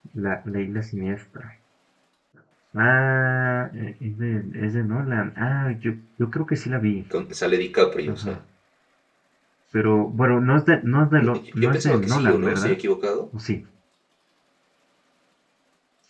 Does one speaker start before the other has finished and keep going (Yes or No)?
Yes